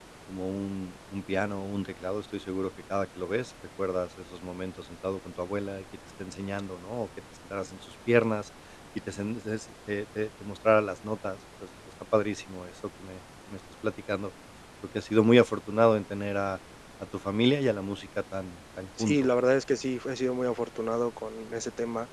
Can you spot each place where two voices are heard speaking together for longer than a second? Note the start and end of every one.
none

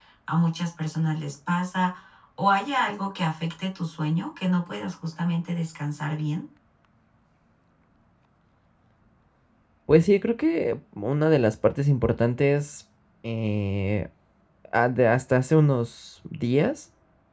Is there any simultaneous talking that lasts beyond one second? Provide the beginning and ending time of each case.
none

